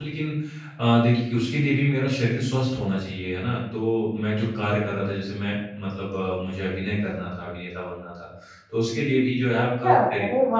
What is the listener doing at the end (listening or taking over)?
taking over